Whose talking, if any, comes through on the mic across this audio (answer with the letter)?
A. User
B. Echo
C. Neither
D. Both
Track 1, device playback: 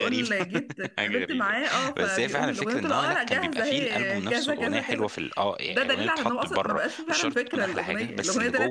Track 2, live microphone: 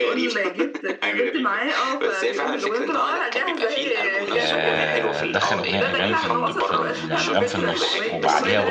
D